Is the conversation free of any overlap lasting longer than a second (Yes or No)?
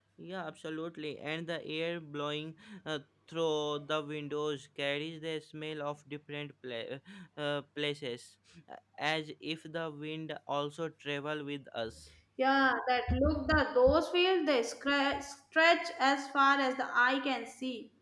Yes